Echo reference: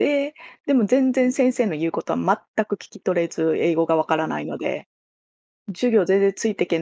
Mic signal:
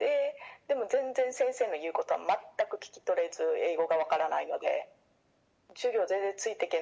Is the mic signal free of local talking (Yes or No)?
Yes